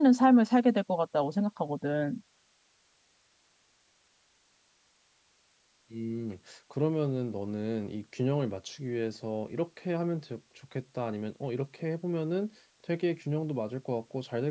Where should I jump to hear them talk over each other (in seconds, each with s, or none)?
none